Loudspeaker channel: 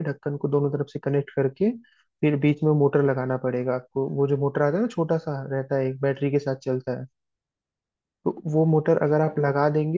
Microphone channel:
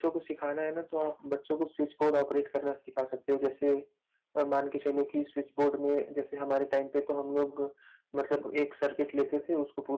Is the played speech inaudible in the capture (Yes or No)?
Yes